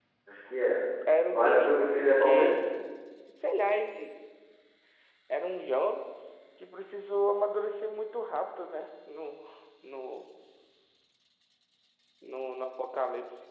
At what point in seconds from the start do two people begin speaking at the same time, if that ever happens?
1 s

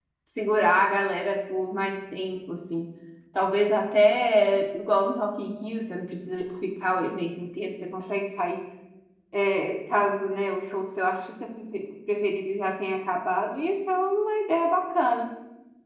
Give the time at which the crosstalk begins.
none

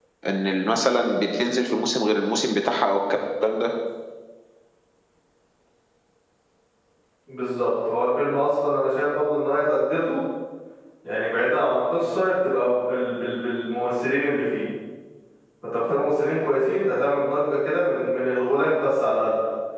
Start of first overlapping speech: none

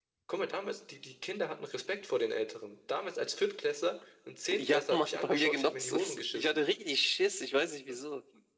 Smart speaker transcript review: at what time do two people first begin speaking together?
5 s

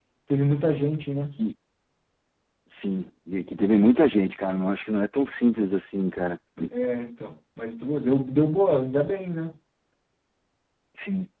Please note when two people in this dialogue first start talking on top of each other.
none

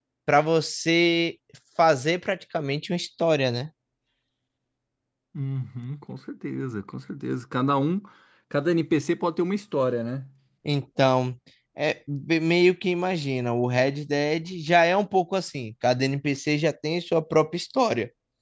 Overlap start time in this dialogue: none

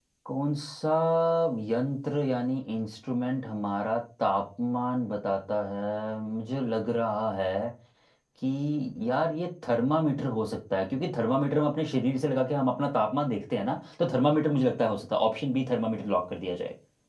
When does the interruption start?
none

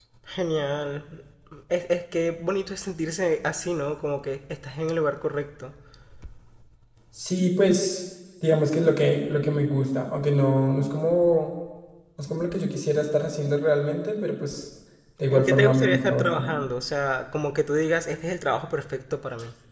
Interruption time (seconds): 15 s

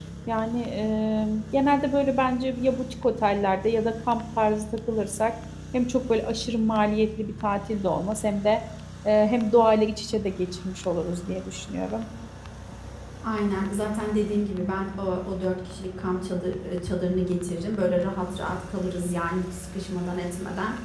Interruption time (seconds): none

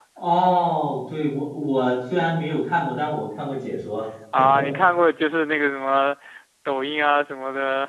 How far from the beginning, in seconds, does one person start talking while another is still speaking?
none

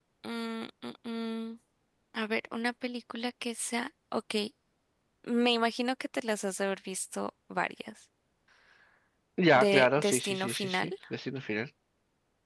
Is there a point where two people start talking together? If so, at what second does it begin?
10 s

